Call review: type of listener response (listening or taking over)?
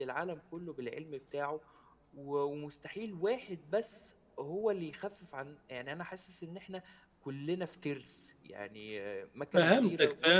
taking over